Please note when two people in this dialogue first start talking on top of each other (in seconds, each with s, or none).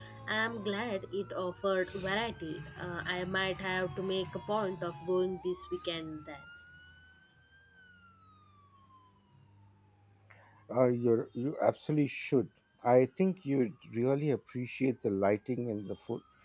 none